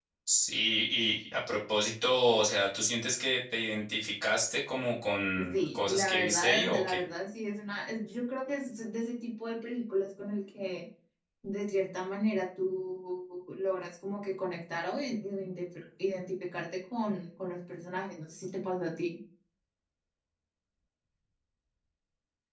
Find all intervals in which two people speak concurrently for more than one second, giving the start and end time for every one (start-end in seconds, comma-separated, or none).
5.5-7.0